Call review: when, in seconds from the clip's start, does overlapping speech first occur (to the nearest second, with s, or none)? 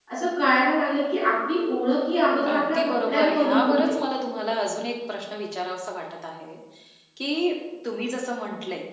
2 s